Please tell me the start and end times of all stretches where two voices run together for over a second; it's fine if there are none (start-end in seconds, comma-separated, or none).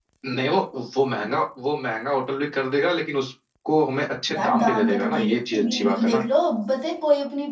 4.3-6.2